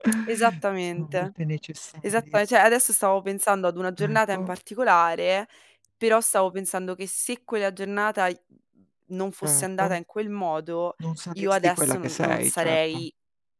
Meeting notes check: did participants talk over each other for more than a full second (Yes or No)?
Yes